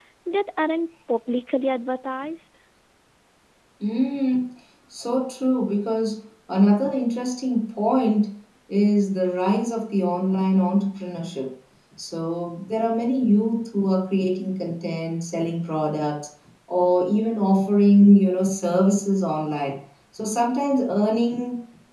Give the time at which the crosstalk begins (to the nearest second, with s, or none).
none